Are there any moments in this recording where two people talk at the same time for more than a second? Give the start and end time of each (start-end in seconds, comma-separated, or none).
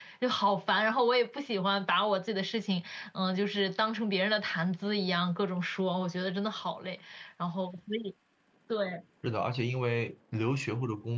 none